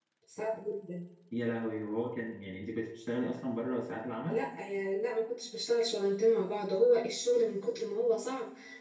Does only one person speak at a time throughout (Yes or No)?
Yes